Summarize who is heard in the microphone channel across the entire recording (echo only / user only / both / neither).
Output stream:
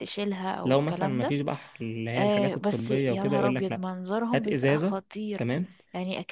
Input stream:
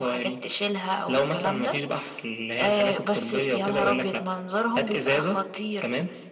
echo only